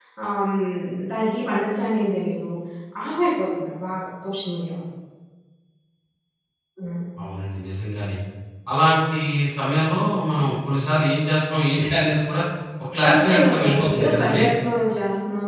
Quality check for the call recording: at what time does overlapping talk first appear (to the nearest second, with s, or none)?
13 s